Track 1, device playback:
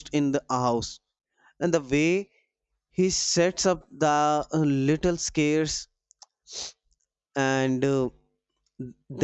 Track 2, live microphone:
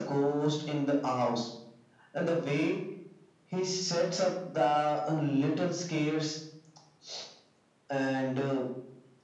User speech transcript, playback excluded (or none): none